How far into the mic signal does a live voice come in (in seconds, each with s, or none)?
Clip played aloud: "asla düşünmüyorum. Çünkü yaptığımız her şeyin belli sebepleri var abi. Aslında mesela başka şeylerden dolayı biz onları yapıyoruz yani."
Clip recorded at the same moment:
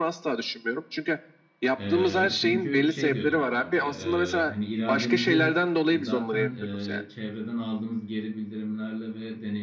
1.8 s